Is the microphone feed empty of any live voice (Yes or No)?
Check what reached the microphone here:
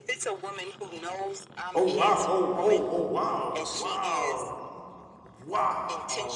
No